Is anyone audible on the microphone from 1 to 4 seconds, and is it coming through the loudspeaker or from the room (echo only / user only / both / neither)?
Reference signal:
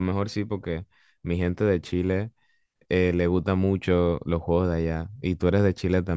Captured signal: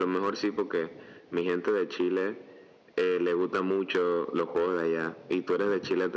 echo only